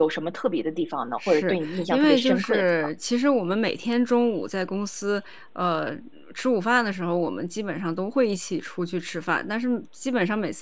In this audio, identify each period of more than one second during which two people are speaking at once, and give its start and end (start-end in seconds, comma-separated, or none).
1.3-2.6